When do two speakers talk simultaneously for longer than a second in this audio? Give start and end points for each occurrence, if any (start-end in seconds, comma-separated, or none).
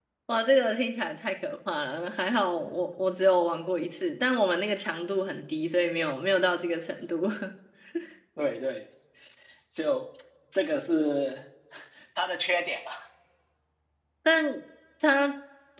none